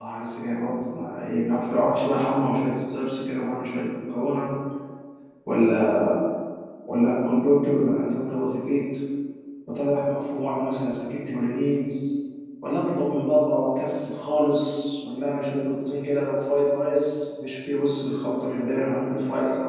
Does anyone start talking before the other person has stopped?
No

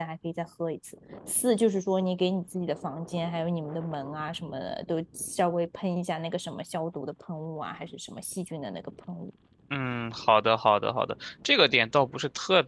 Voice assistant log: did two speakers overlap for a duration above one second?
No

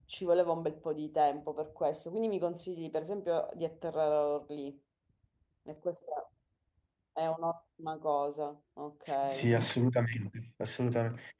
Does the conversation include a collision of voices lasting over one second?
No

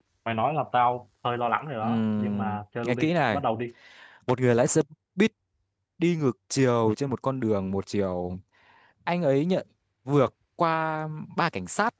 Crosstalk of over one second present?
Yes, from 1.8 s

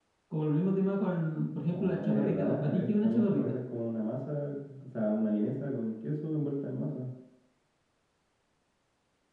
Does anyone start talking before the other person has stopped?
Yes, from 1.7 s

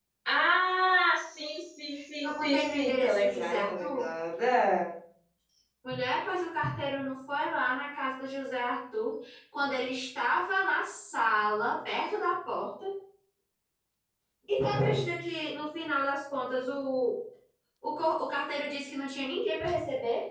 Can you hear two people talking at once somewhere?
Yes, from 1.9 s

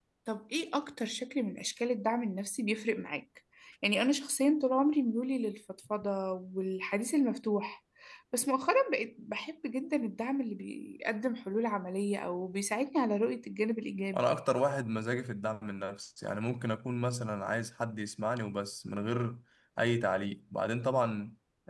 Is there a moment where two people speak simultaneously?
No

